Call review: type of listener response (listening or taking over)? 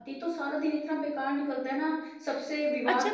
taking over